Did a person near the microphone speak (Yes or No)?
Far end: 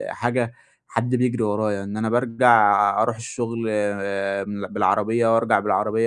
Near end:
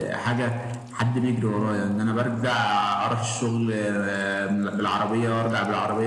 No